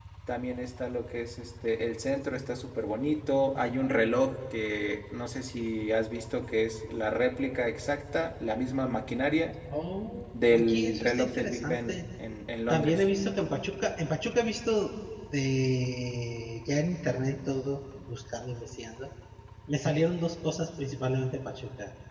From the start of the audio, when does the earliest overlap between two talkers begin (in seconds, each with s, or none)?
10.4 s